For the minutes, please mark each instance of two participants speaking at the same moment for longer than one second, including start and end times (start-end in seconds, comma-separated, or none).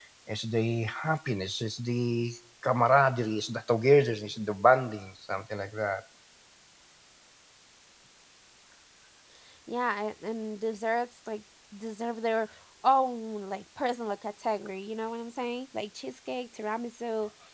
none